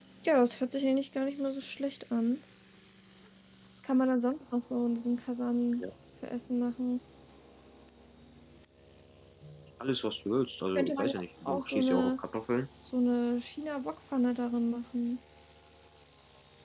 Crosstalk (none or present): present